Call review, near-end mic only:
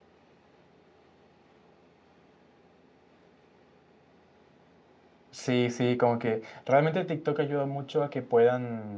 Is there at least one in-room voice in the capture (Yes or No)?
Yes